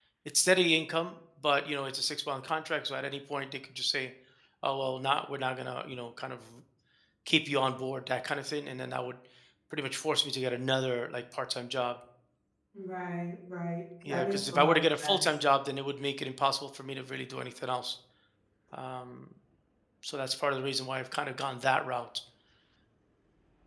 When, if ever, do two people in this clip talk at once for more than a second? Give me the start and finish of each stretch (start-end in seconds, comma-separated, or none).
14.1-15.3